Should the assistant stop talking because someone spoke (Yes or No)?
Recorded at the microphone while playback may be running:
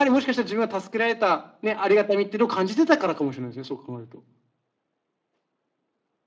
No